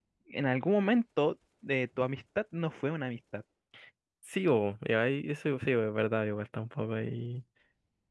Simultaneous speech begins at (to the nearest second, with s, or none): none